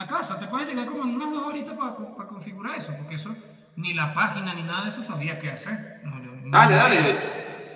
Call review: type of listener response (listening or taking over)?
taking over